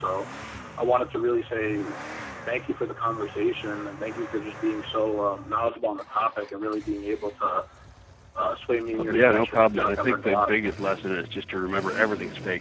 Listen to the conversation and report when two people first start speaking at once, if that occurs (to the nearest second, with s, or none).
9 s